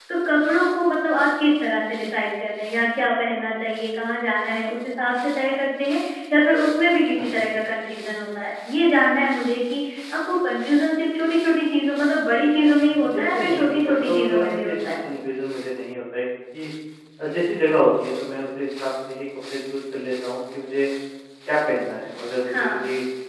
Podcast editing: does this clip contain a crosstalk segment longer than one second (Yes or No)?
Yes